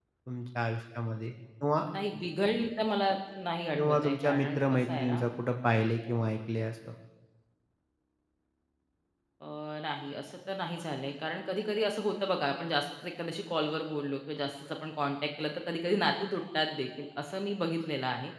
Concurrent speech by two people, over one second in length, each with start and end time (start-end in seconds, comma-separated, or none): 3.8-5.2